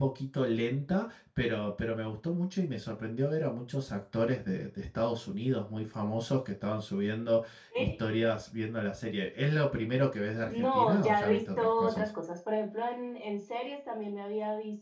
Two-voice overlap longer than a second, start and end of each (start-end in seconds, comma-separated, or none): 10.5-12.1